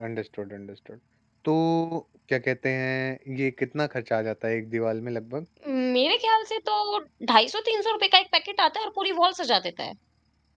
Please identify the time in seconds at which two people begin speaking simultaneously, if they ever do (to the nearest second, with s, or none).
none